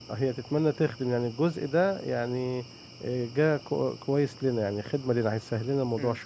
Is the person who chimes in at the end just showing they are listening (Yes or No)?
No